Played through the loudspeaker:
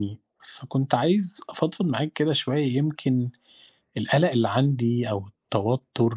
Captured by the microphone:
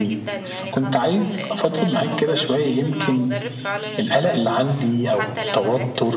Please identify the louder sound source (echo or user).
echo